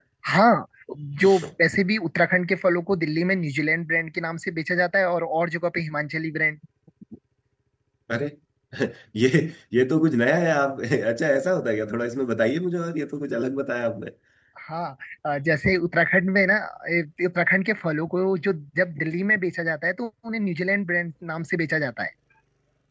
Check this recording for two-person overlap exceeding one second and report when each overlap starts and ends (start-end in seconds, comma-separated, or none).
none